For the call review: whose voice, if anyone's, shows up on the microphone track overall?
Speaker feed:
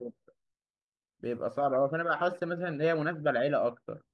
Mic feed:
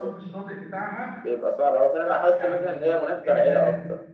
both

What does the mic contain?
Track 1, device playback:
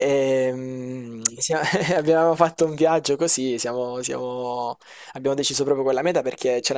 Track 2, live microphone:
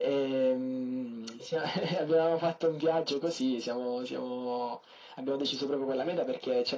echo only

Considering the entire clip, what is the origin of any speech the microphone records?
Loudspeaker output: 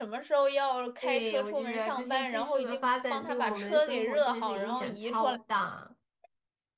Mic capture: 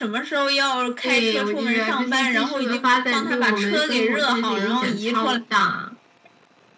echo only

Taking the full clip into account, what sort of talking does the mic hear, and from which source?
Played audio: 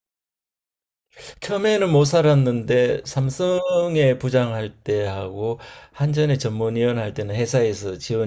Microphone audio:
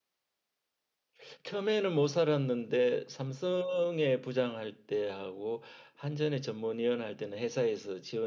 echo only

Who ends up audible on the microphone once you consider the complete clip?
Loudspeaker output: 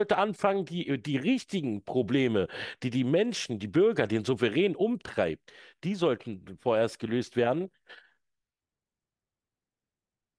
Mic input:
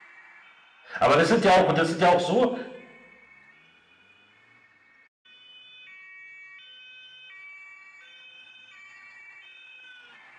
user only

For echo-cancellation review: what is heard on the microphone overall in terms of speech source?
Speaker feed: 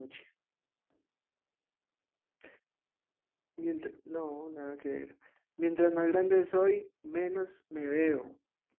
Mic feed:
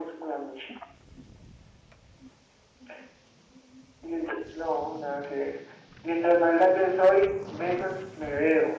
echo only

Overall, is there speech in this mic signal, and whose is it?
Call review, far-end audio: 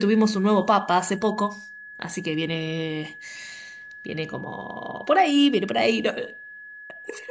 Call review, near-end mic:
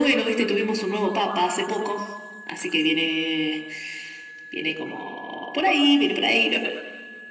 echo only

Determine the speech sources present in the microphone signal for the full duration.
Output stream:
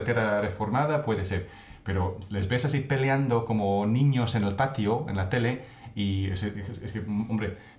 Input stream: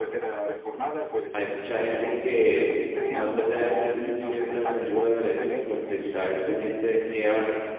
both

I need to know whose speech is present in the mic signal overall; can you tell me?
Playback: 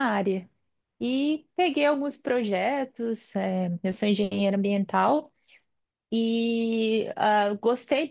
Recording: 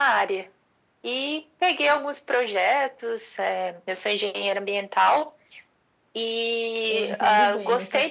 both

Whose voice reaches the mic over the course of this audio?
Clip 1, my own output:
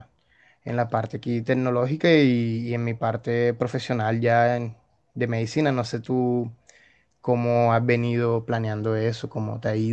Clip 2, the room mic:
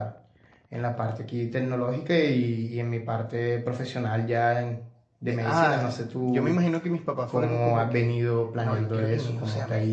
both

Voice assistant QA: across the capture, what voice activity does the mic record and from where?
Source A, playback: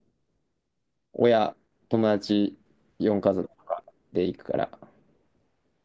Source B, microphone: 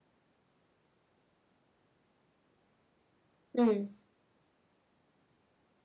user only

